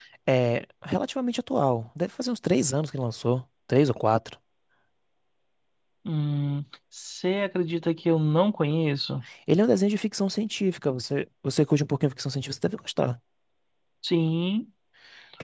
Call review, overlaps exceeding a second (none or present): none